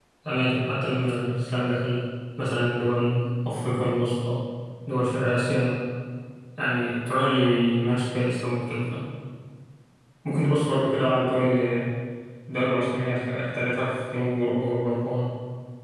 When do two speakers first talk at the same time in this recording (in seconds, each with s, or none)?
none